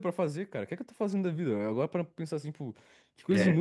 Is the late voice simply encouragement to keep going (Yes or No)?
Yes